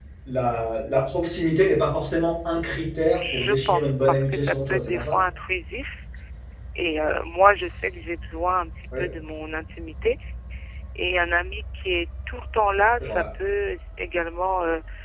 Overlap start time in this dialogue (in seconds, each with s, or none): 3.1 s